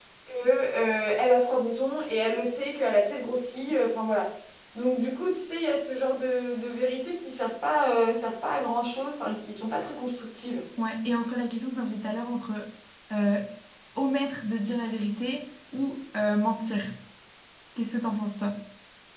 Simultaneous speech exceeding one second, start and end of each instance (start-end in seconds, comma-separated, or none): none